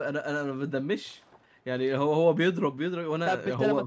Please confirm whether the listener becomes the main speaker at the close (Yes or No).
Yes